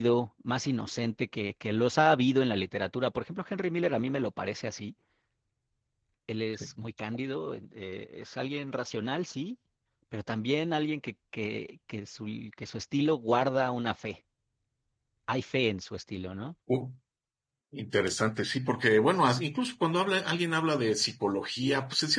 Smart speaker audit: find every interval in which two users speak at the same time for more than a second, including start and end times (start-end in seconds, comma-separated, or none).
none